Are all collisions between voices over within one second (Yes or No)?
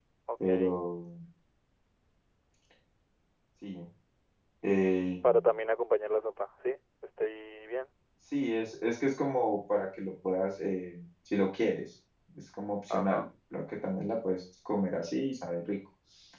Yes